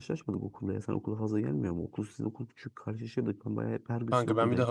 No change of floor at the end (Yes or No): No